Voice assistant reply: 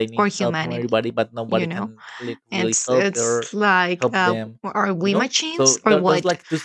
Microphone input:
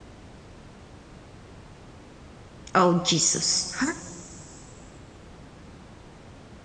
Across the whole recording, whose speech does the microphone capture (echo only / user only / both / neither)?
user only